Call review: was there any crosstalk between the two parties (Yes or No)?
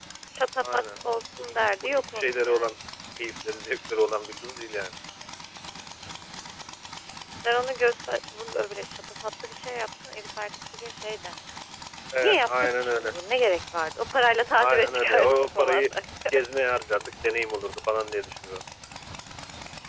Yes